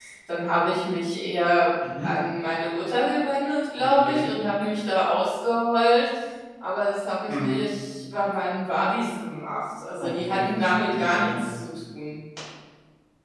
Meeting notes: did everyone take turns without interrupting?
No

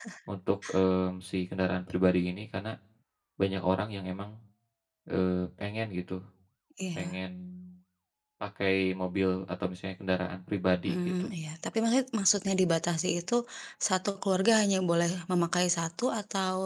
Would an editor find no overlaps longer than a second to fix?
Yes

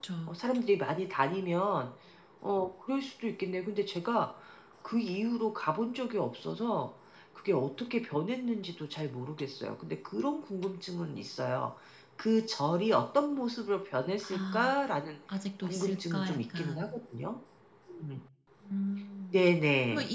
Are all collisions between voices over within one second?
No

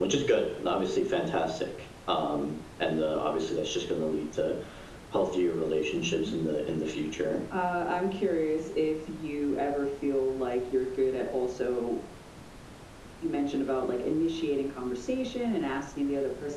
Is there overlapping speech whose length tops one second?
No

